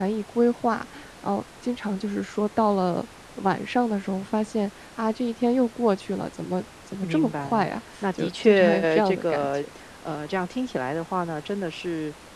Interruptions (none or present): present